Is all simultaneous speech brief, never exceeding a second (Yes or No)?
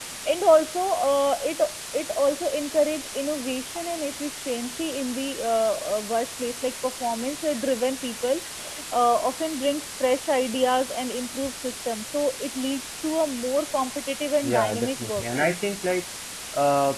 No